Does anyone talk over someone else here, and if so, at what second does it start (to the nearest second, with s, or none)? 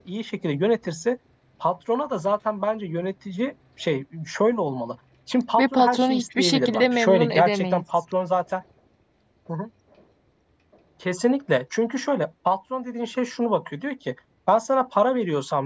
6 s